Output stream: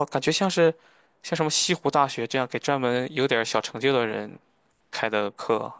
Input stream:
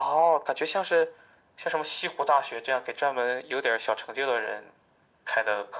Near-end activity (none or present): none